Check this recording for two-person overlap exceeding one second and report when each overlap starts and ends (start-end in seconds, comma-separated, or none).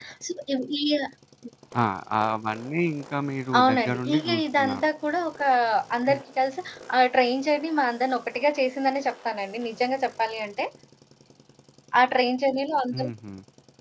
3.6-4.9